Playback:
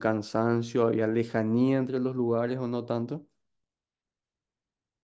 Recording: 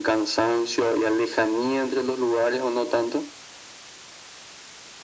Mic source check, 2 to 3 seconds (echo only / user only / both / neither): echo only